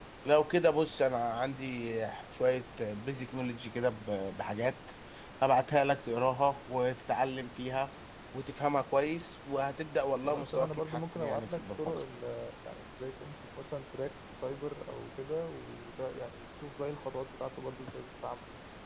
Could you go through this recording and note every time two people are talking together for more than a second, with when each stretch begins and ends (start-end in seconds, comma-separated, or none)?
10.2-11.9